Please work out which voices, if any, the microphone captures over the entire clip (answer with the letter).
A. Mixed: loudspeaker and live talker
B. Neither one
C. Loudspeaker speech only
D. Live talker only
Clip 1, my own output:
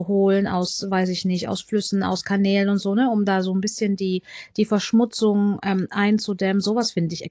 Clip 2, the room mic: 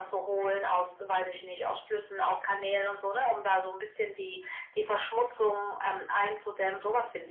C